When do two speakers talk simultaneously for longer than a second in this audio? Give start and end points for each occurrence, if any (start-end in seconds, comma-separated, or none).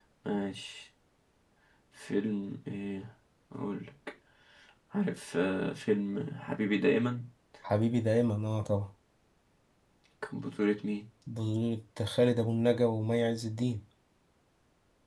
none